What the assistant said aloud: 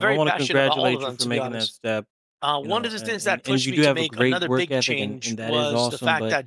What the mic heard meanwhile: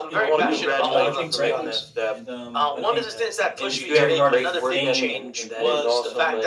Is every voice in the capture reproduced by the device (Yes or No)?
No